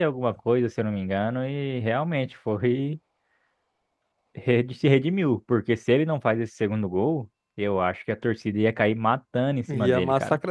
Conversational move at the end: taking over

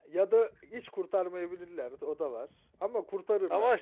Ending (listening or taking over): taking over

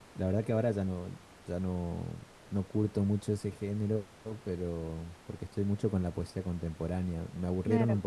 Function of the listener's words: listening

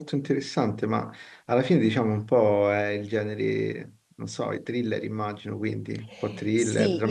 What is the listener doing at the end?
taking over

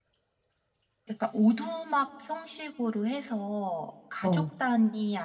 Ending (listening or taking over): listening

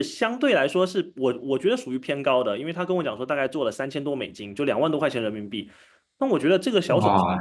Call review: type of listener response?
taking over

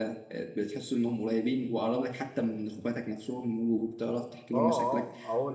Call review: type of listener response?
taking over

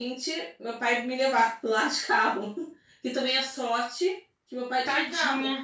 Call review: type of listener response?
listening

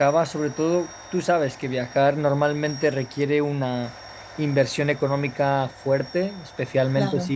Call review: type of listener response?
listening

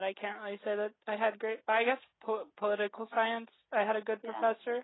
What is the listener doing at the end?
listening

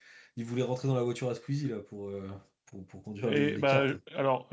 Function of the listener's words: taking over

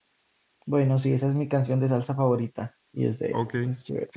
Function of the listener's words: taking over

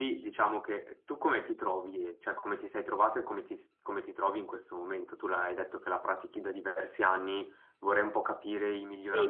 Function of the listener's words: taking over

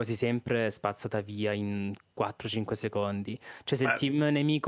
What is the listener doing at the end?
listening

